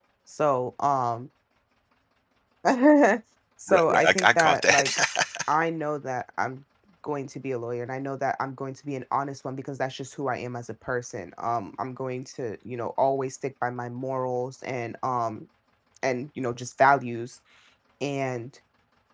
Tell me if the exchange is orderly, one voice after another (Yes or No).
No